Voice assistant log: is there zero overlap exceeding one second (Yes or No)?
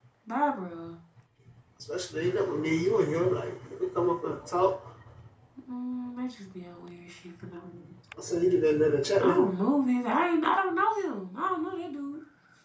Yes